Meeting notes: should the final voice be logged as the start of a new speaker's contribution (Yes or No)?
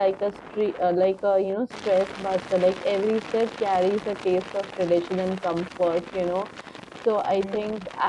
No